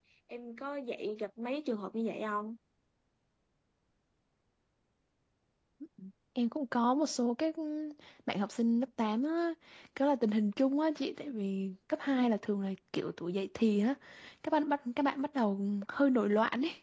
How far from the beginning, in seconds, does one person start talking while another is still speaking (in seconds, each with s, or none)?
none